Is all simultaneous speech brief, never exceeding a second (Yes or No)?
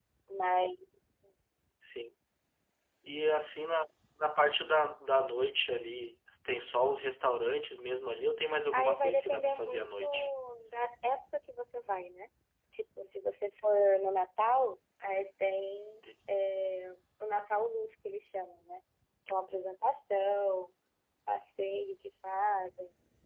No